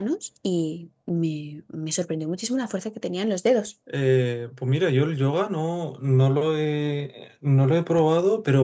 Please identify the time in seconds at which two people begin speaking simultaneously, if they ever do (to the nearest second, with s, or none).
none